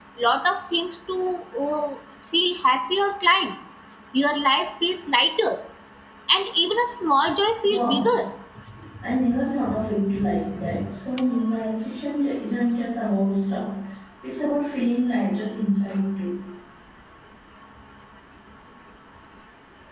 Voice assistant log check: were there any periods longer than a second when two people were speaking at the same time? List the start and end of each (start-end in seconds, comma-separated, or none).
none